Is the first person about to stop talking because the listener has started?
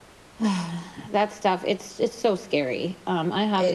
No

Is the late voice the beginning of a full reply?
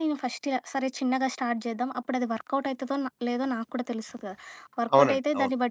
No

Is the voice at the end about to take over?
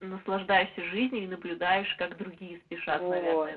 Yes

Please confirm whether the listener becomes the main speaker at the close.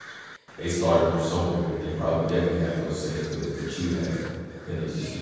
No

